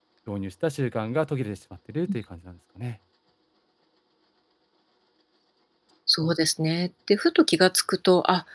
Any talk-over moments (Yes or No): No